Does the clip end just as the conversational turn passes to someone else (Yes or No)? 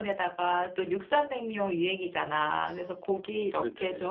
No